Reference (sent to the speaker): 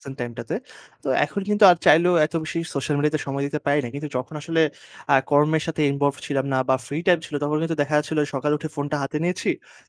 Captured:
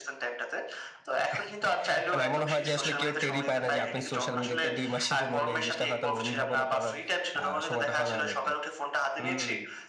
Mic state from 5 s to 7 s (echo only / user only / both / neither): both